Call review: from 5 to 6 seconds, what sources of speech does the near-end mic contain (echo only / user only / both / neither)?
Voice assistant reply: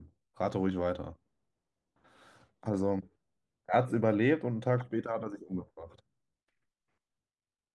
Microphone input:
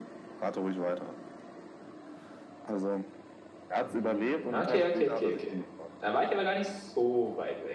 both